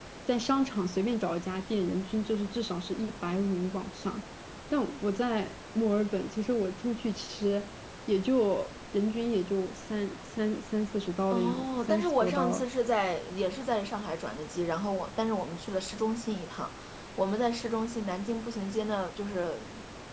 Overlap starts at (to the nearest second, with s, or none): 11 s